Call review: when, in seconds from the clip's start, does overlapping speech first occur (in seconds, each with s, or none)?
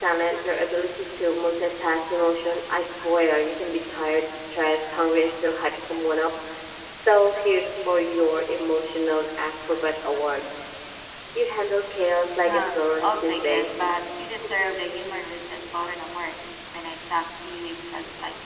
12.5 s